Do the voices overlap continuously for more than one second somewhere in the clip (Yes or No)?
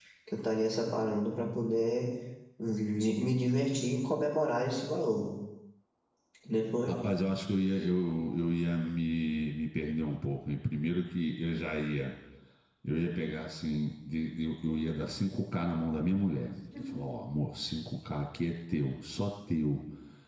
No